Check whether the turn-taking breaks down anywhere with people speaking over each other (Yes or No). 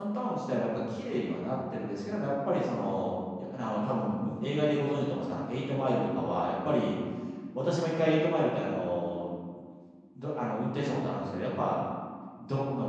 No